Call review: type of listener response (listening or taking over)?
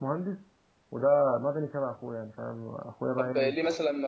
taking over